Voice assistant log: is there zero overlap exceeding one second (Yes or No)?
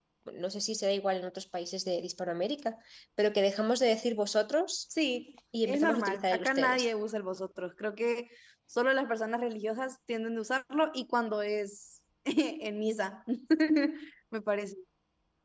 No